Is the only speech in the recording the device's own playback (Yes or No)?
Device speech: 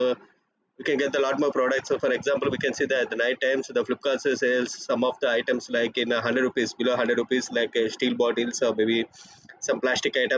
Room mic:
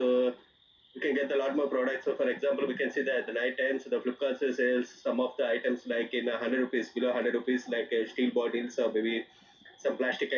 Yes